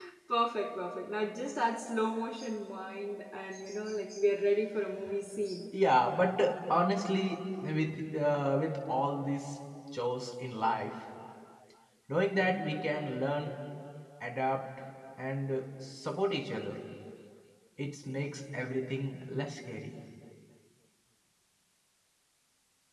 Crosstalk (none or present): none